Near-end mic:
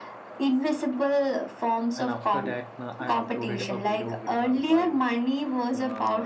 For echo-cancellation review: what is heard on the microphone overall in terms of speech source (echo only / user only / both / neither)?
both